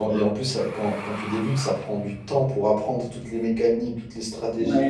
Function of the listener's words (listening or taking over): taking over